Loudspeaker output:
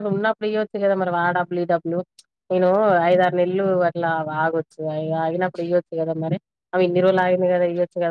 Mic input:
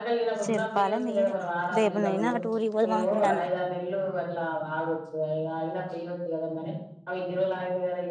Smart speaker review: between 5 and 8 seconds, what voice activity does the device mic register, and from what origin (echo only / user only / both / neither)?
echo only